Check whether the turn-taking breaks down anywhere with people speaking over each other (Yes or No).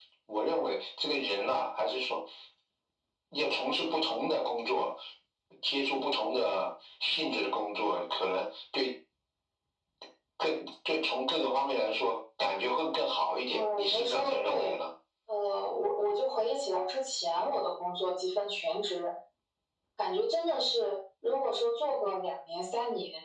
Yes